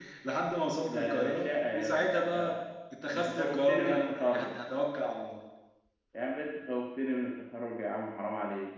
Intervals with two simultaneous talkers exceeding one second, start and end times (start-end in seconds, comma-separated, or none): 0.9-2.6, 3.1-4.6